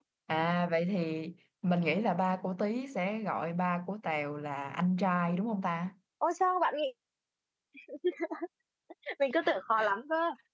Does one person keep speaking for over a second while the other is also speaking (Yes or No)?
No